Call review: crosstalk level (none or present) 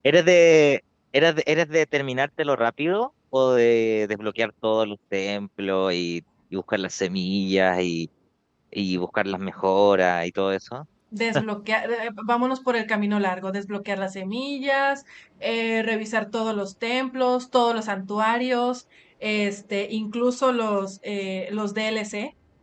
none